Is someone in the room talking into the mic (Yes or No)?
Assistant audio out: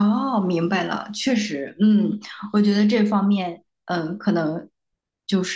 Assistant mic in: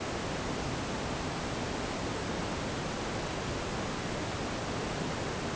No